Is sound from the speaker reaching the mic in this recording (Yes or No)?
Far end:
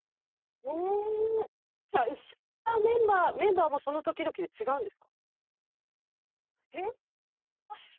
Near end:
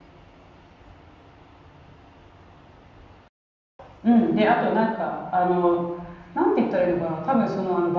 No